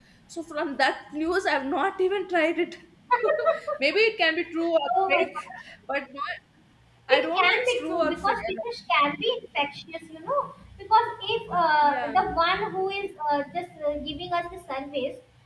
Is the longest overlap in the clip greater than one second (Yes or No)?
Yes